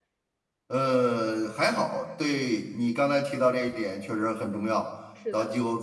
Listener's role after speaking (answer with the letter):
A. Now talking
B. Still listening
B